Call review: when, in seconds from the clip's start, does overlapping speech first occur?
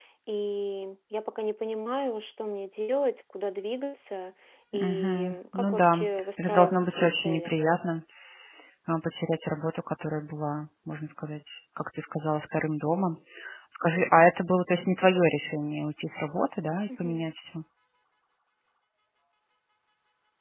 4.7 s

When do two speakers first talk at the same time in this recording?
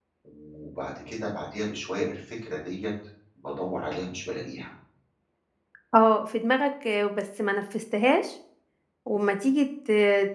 none

